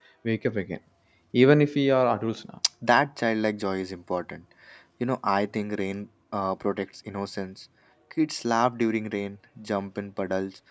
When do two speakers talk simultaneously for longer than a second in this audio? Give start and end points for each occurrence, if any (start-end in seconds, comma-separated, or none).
none